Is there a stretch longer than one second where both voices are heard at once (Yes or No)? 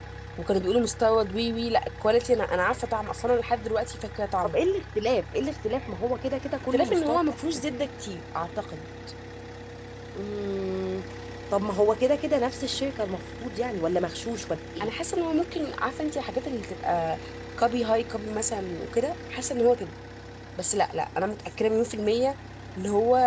No